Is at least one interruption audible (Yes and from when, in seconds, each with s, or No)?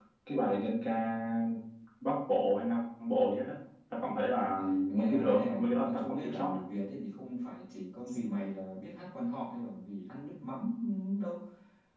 Yes, from 4.9 s